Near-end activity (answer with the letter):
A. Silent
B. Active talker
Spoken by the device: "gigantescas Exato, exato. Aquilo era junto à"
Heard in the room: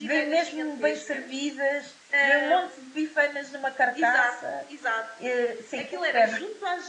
B